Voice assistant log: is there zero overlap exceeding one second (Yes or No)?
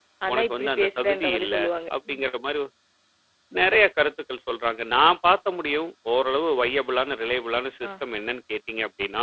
No